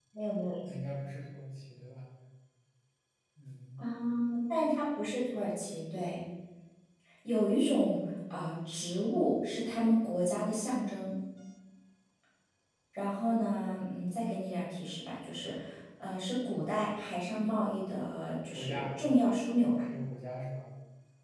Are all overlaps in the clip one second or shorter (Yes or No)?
Yes